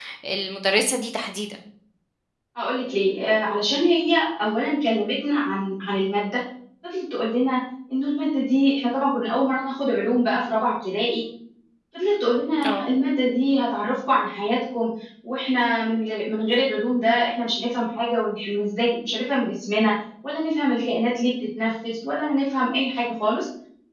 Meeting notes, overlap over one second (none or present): none